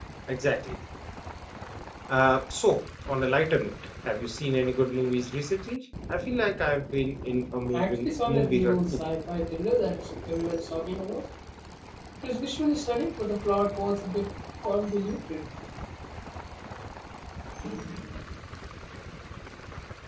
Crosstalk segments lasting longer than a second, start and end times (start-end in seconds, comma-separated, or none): 7.7-9.0